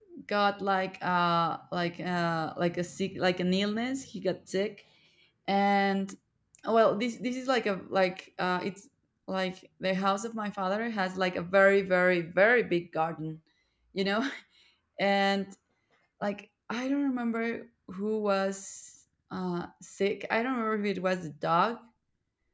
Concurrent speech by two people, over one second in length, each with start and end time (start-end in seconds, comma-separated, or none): none